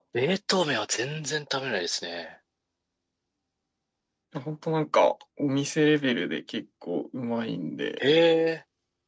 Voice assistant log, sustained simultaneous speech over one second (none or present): none